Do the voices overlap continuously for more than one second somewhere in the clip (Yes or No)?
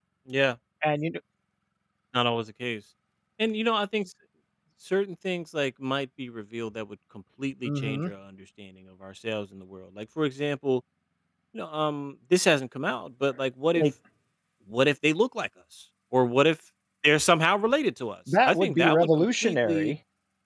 Yes